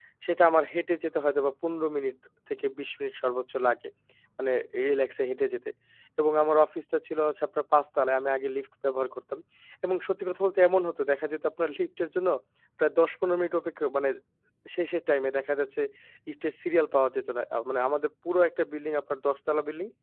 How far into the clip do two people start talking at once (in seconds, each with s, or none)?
none